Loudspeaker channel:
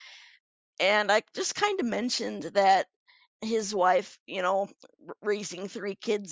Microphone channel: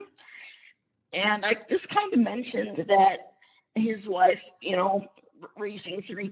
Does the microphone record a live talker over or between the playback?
No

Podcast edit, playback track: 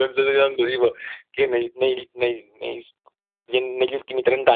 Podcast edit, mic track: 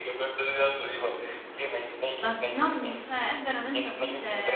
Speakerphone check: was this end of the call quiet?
No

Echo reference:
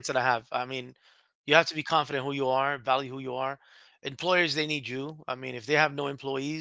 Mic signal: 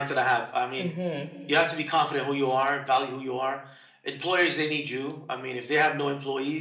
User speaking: Yes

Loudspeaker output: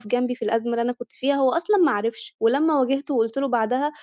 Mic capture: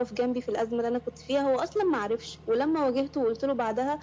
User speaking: No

